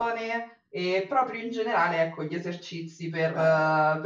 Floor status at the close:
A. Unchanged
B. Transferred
A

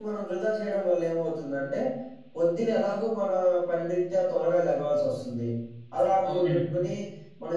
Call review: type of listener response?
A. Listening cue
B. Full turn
A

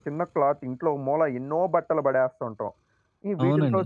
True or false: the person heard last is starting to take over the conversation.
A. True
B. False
B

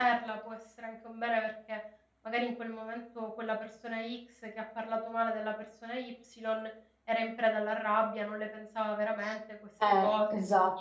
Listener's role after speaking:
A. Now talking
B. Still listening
A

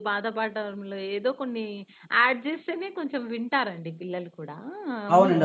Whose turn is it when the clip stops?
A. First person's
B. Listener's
B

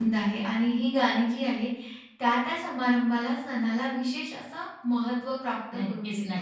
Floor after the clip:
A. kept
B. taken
B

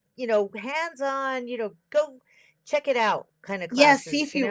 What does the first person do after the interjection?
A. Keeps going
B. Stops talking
B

